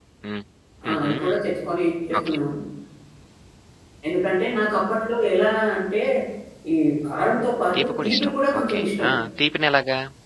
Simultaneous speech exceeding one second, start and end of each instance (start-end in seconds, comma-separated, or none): 7.7-9.1